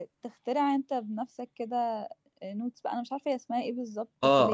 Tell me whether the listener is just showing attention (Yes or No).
No